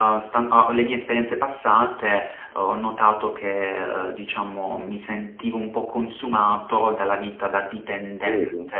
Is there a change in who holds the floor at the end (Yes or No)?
No